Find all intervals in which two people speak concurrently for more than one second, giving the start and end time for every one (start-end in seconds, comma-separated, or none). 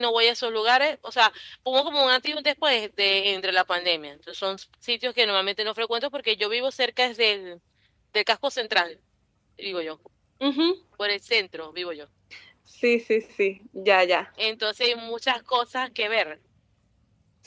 none